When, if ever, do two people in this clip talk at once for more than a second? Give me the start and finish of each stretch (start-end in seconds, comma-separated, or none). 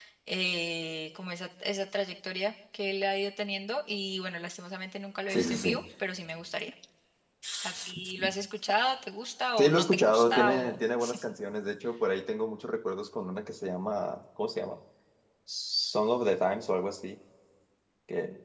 9.6-10.8